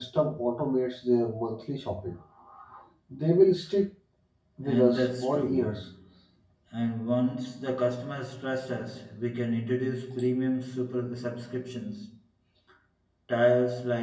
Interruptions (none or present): present